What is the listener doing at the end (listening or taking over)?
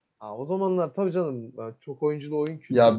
taking over